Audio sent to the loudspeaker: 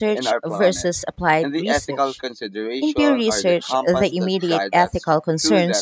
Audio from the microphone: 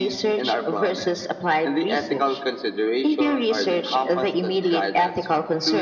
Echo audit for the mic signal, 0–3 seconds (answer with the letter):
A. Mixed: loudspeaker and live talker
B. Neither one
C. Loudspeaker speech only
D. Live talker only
C